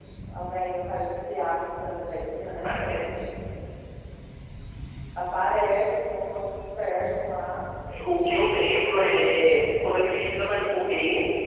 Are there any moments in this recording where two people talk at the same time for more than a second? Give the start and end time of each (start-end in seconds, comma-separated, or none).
none